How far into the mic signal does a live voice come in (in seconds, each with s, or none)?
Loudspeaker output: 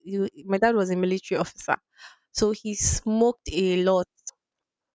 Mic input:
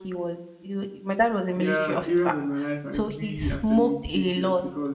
1.5 s